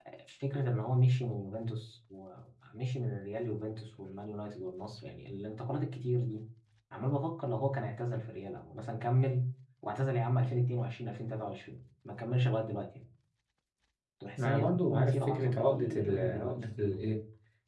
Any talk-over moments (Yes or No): Yes